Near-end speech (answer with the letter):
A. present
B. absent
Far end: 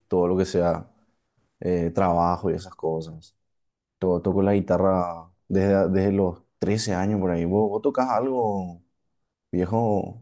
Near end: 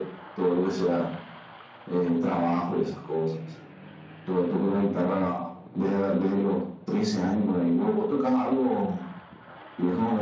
B